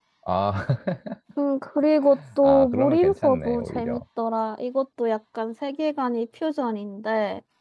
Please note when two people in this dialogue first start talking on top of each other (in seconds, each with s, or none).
2.4 s